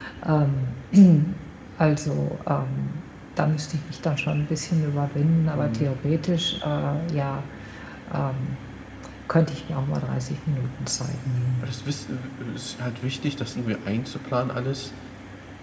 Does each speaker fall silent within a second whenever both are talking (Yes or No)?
Yes